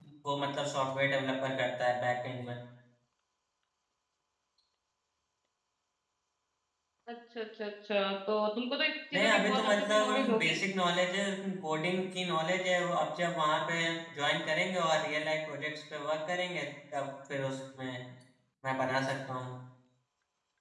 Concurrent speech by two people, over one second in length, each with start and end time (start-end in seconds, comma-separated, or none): 9.1-10.6